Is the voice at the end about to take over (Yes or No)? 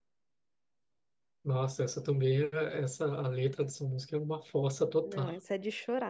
Yes